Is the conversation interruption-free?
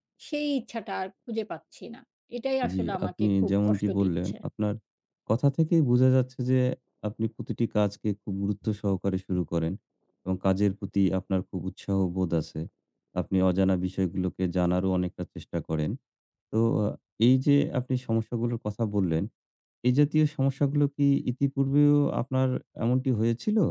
No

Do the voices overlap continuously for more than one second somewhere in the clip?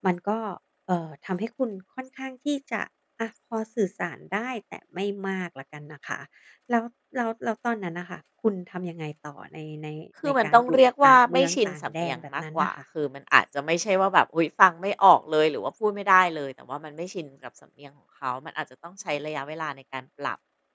Yes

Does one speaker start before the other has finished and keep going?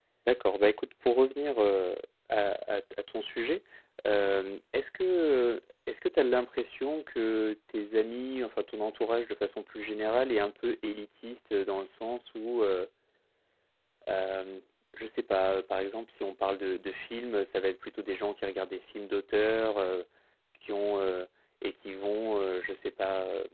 No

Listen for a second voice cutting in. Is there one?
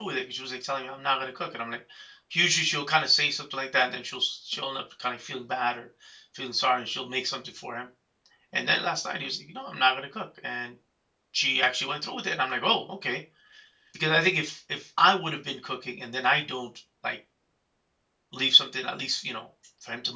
No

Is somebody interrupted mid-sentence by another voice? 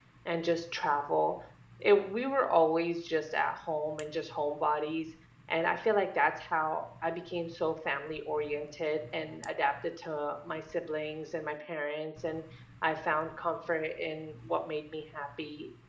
No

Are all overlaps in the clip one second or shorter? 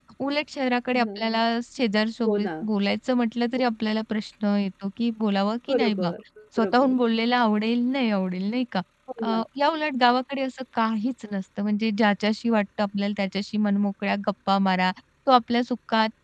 Yes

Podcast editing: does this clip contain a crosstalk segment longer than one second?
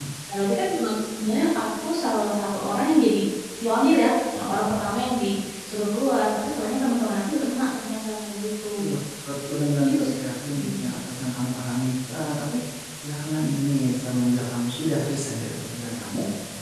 No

